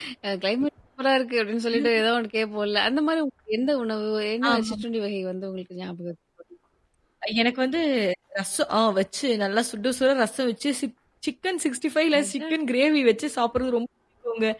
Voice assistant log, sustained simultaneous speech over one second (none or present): none